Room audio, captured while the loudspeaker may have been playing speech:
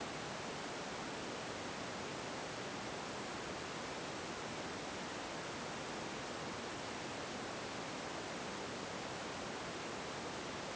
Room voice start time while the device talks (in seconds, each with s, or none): none